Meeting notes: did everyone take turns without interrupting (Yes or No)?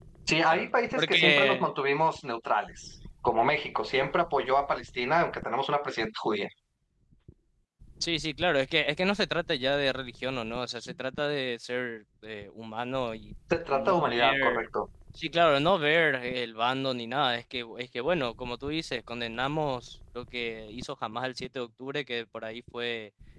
No